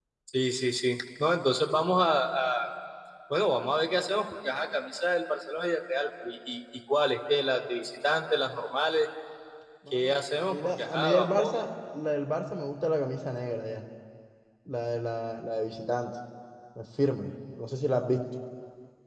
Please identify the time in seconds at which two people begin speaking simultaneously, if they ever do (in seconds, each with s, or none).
9.9 s